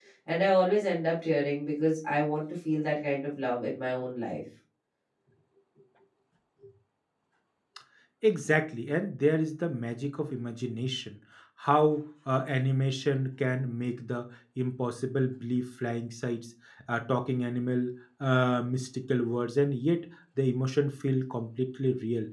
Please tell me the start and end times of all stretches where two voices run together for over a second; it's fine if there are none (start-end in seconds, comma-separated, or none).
none